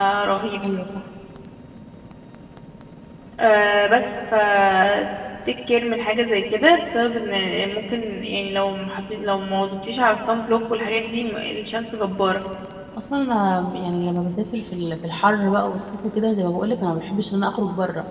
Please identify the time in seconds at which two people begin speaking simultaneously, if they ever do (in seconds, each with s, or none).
none